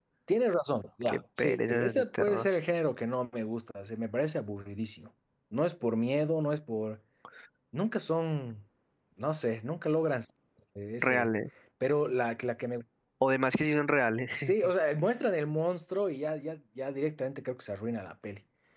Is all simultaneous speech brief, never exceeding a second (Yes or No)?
No